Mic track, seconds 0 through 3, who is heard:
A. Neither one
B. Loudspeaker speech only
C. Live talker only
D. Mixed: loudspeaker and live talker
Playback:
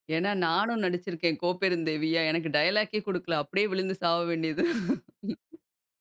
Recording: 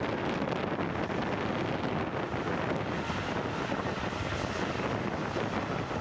A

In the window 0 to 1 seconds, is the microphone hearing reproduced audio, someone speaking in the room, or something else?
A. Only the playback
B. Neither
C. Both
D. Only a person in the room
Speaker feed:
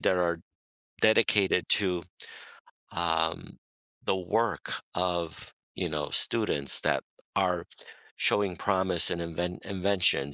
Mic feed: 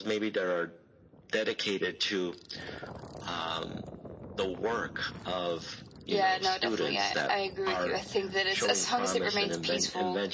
A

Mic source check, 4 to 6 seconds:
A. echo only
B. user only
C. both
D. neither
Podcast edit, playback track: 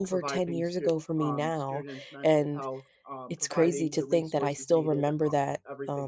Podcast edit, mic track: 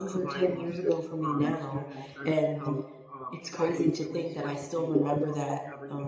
A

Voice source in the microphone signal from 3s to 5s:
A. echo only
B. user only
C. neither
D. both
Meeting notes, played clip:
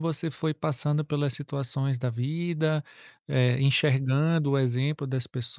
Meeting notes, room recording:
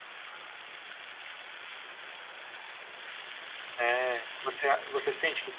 B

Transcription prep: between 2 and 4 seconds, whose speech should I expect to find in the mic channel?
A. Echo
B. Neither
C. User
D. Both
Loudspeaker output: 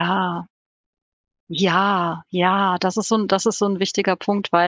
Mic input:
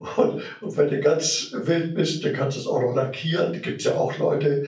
C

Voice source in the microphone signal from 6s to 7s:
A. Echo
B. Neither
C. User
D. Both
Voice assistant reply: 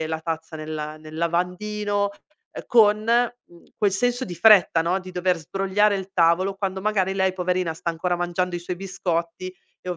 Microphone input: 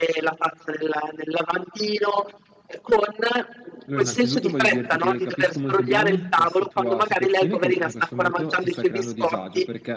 D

